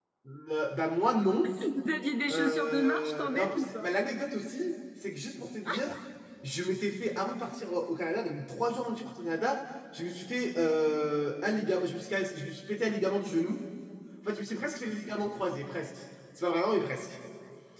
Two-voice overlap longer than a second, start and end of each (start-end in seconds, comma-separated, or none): 2.3-3.9